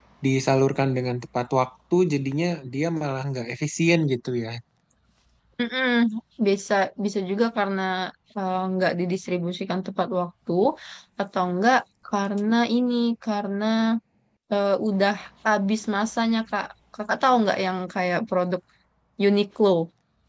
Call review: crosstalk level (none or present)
none